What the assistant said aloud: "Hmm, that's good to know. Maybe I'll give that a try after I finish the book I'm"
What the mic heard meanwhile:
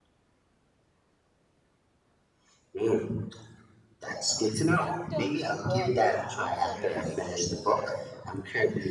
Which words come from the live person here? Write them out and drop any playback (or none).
In terms of what, like books or music?